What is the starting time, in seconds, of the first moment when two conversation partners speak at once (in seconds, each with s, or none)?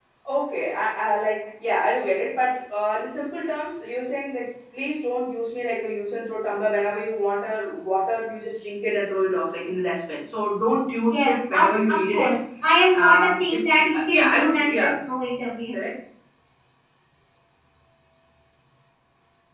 11.1 s